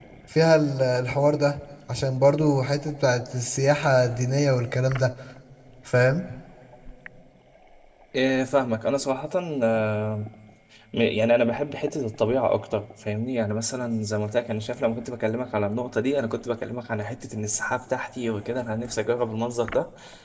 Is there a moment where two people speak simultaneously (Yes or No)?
No